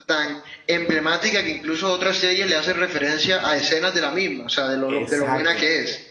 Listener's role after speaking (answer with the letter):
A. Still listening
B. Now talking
B